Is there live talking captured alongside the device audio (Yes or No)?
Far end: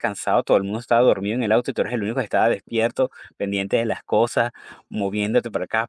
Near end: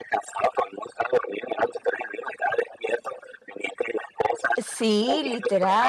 Yes